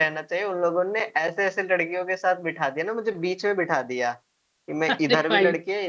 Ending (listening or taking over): listening